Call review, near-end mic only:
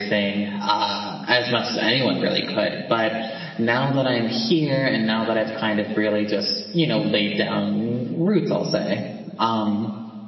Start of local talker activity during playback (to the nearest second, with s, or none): none